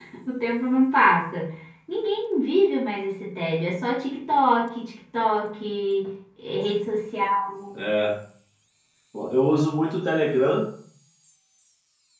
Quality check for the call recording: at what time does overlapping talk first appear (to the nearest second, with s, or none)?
none